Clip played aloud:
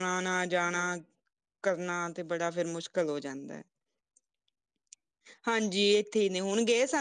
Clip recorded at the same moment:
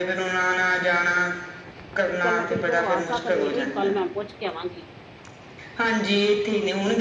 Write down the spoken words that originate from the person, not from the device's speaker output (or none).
ਵੀ ਚੱਲ ਮੈਂ ਟੀਕ ਲਵਾ ਸਕਨੀਏ, ਇਹ ਗੱਲ ਮੈਂ ਪੁੱਛ ਕੇ ਆਵਾਂਗੀ।